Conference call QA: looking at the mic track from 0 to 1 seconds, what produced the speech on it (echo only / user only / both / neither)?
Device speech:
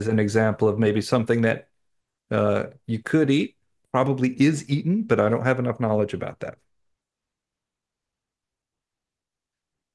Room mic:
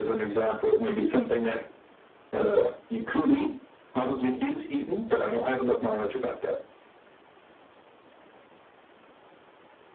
echo only